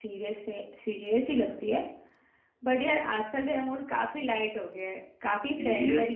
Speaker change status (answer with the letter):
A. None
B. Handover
B